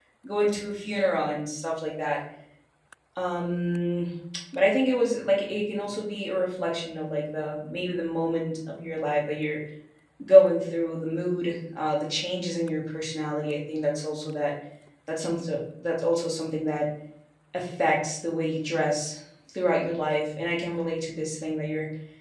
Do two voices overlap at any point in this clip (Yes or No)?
No